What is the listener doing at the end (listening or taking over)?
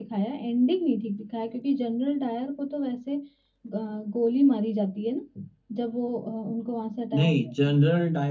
taking over